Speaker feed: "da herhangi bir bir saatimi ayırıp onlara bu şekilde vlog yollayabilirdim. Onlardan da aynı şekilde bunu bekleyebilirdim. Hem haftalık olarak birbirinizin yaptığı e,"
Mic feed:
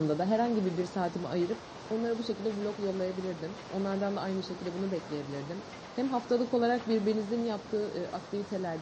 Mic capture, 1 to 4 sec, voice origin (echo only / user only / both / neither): echo only